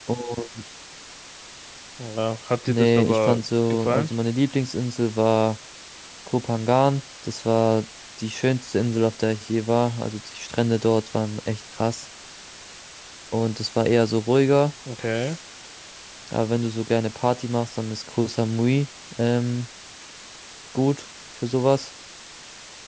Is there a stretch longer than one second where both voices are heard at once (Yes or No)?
Yes